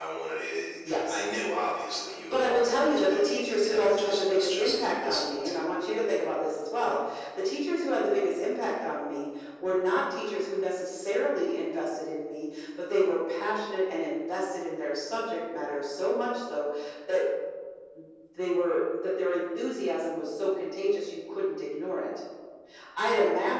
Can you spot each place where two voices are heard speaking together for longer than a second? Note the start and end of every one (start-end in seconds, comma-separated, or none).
2.3-5.6